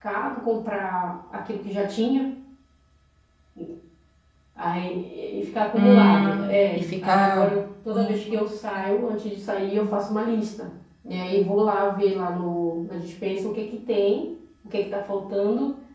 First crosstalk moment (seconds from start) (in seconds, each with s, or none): 5.8 s